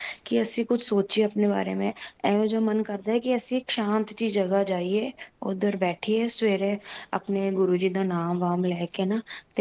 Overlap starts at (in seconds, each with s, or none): none